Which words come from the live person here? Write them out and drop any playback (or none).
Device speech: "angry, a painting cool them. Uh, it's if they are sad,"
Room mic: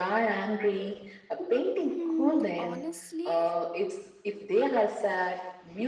Hmm, honestly,